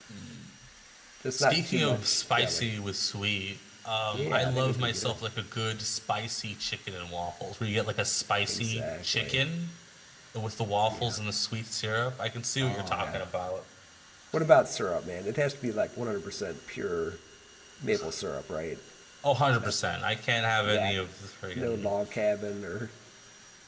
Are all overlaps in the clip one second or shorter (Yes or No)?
No